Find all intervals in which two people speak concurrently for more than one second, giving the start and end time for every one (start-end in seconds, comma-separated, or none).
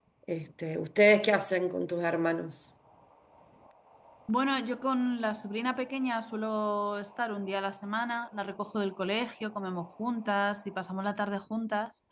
none